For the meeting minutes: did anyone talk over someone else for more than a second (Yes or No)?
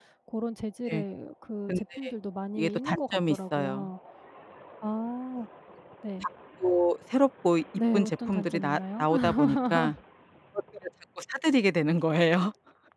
Yes